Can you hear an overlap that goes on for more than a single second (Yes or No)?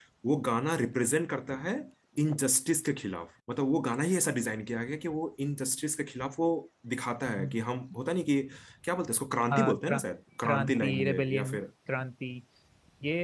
Yes